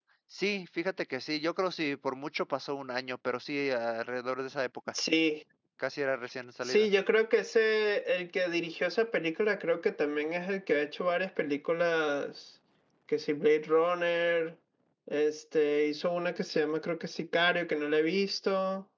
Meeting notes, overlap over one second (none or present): none